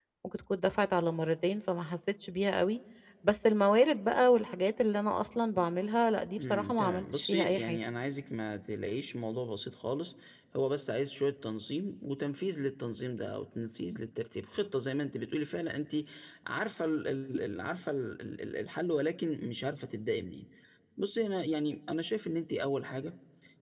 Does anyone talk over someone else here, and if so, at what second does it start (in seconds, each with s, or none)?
6.4 s